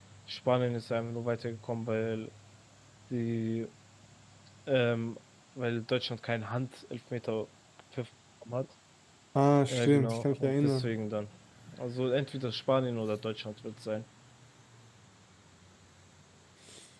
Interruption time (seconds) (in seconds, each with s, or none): 9.7 s